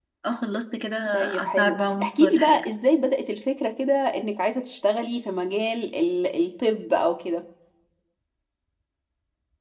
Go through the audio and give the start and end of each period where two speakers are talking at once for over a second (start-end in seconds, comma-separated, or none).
1.4-2.6